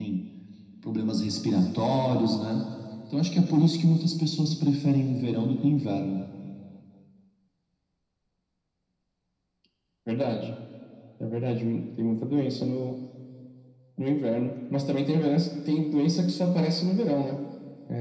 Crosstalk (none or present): none